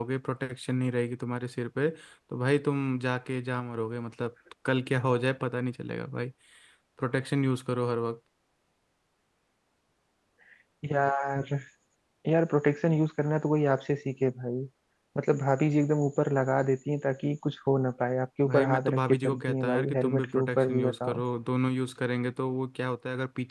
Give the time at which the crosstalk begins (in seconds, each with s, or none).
18.4 s